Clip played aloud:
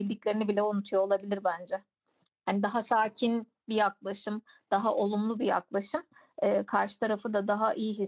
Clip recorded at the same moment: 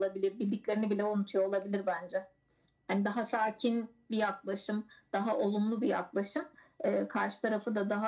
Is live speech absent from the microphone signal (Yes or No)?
Yes